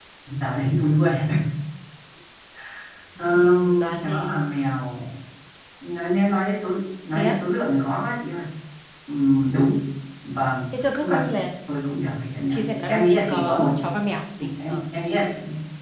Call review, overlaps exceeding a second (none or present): present